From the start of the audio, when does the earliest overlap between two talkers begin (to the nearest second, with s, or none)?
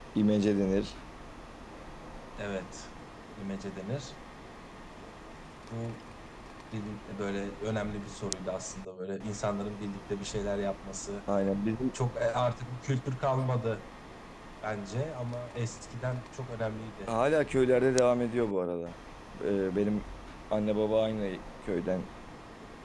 none